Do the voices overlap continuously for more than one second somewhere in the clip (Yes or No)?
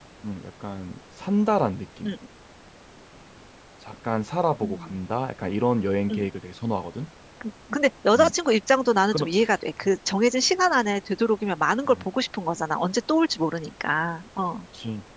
No